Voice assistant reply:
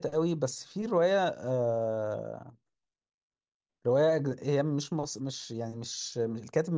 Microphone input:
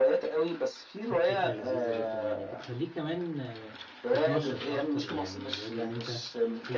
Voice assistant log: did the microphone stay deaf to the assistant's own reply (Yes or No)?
No